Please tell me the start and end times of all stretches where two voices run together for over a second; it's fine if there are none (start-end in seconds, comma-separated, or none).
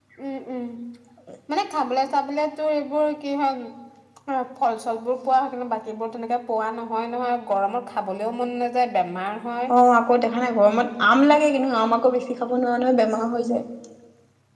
none